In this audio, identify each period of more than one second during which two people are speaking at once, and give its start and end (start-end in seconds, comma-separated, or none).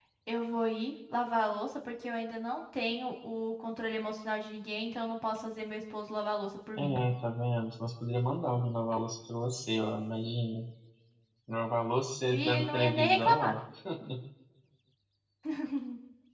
12.3-13.6